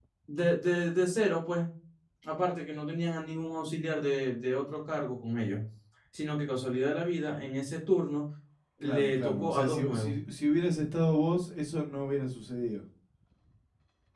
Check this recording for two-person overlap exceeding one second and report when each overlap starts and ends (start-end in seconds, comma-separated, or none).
8.8-10.2